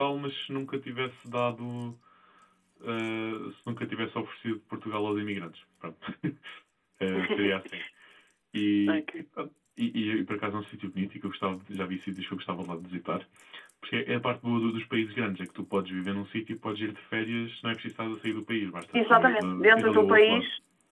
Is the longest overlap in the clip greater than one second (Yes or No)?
Yes